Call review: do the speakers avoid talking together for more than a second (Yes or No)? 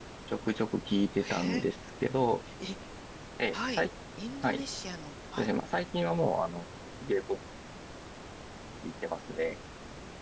Yes